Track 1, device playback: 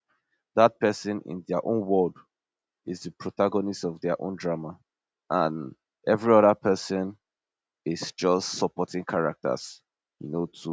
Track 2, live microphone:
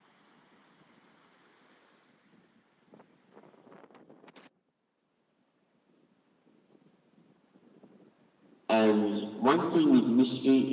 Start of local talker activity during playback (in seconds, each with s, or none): 8.7 s